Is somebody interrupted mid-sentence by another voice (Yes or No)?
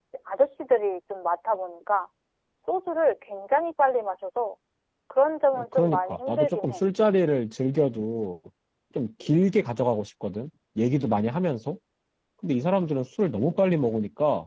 Yes